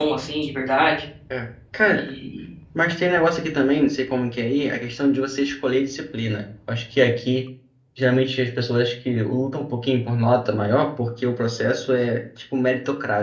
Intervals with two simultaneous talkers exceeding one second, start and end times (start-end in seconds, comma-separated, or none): none